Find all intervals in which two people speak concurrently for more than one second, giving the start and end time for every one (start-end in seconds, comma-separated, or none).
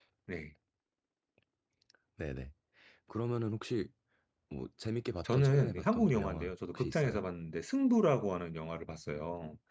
5.2-7.2